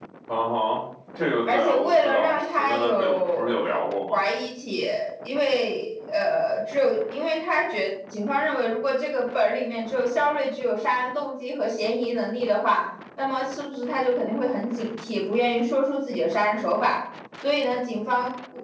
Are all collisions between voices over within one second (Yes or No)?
No